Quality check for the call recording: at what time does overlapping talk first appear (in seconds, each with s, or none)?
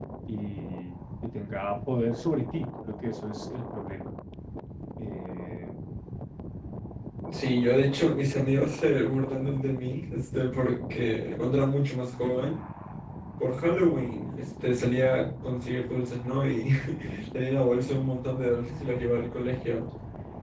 none